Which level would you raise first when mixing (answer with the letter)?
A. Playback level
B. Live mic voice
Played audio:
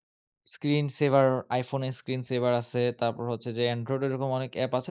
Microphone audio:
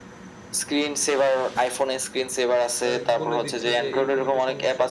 B